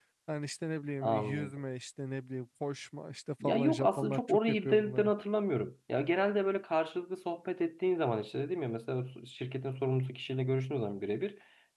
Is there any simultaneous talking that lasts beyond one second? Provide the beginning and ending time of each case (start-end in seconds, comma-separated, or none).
3.4-5.1